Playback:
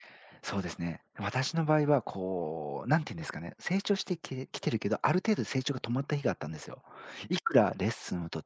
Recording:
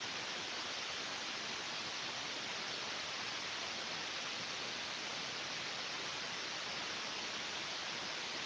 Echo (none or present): none